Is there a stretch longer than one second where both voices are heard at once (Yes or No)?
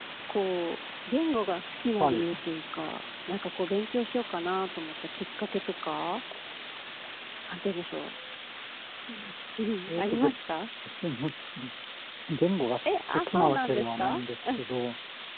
Yes